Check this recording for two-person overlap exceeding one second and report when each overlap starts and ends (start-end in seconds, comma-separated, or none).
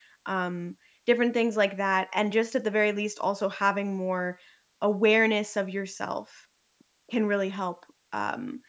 none